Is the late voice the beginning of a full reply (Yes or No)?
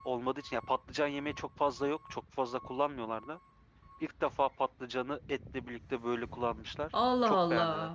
Yes